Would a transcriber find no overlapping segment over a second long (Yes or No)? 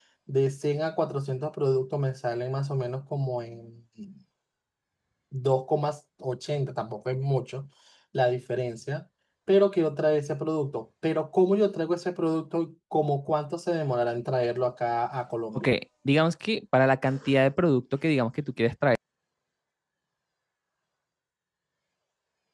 Yes